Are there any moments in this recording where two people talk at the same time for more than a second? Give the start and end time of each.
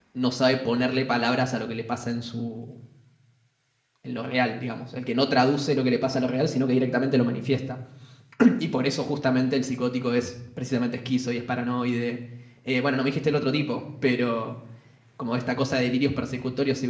none

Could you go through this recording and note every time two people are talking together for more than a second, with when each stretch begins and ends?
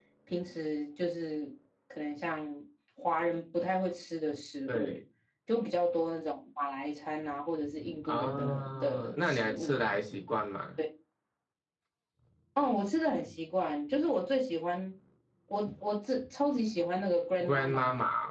8.0-9.8

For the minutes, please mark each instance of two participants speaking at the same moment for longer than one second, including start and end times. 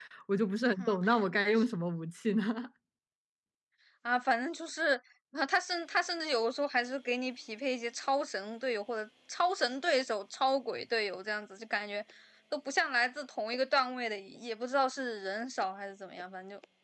none

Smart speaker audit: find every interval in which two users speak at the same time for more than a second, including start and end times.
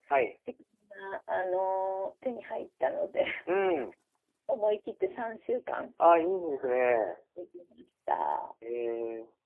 none

